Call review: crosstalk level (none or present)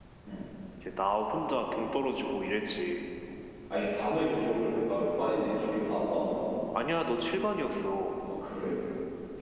none